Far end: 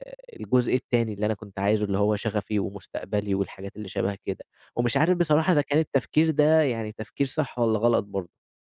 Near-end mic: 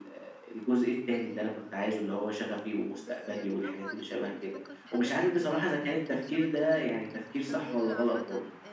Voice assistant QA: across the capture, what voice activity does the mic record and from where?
both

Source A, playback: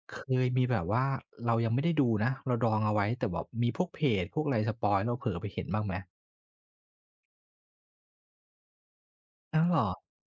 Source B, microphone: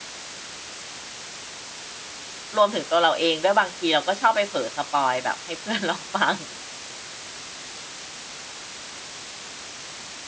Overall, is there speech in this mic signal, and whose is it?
user only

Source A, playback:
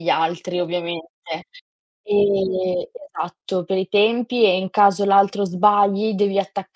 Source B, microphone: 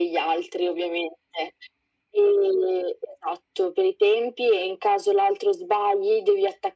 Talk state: echo only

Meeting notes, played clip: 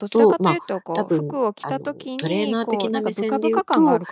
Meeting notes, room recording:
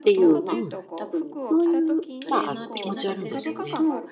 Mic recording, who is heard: both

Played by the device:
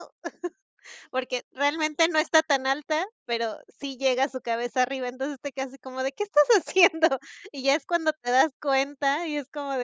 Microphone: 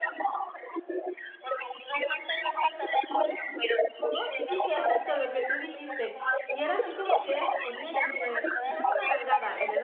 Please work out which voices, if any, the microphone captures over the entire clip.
both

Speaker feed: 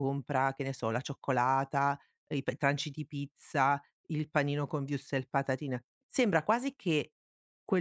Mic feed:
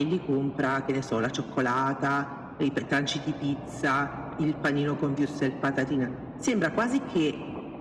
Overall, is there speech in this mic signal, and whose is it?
echo only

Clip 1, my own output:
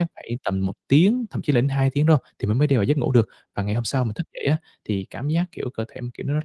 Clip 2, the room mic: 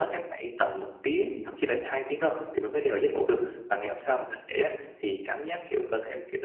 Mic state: echo only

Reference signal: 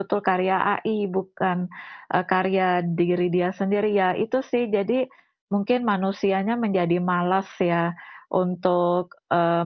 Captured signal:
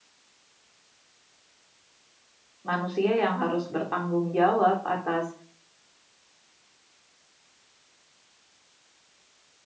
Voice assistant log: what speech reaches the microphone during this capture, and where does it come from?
user only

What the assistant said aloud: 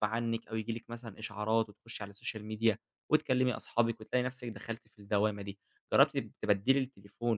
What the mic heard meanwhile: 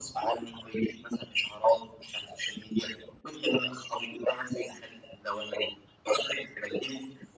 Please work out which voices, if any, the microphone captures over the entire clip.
echo only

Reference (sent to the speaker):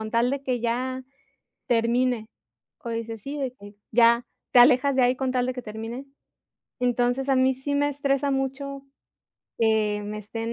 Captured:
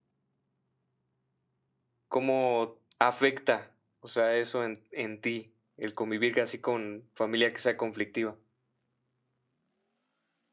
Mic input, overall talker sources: user only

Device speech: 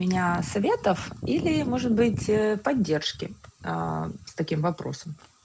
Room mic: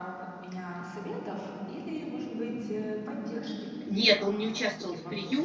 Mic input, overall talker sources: both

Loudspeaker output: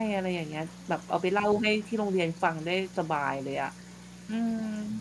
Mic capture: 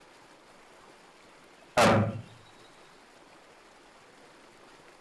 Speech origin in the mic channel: user only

